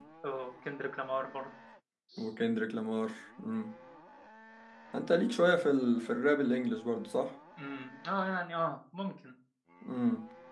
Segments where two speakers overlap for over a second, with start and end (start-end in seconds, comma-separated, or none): none